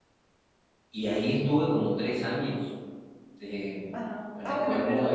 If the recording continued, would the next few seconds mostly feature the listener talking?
Yes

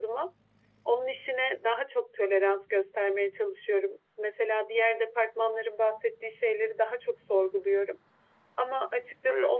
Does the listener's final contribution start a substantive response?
No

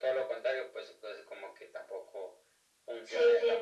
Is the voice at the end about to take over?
Yes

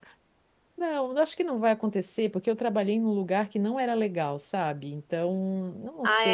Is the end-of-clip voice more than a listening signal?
Yes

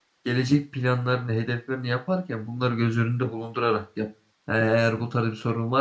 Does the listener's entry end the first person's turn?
No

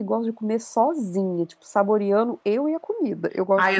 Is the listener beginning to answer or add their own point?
Yes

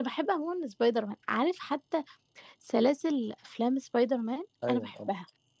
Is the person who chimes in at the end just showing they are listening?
No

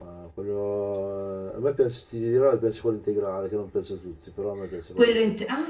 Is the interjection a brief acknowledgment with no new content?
No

